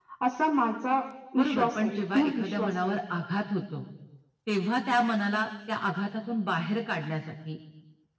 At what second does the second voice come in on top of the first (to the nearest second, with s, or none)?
1 s